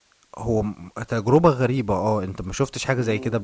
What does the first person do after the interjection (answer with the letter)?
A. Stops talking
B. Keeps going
A